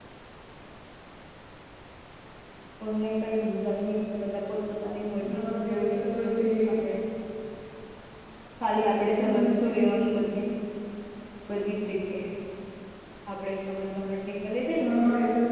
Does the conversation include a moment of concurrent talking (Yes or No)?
Yes